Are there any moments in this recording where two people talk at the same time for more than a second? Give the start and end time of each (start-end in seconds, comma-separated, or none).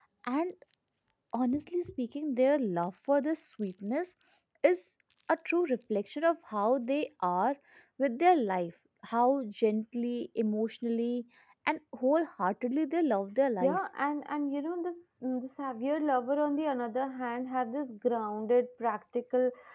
none